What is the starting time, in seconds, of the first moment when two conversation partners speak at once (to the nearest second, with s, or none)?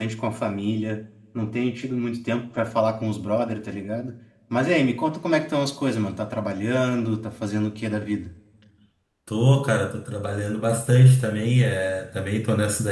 none